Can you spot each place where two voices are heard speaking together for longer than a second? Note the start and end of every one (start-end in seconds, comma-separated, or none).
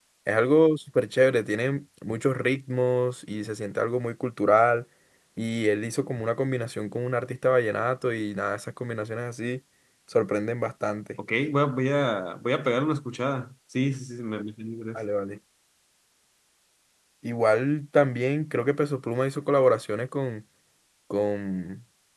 none